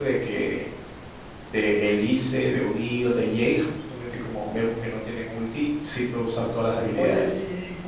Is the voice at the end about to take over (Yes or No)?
Yes